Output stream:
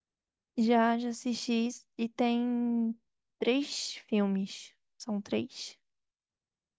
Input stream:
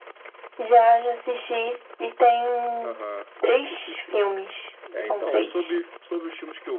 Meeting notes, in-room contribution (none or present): present